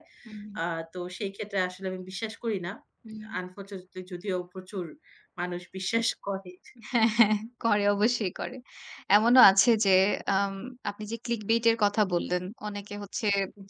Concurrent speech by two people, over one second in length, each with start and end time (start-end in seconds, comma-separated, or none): none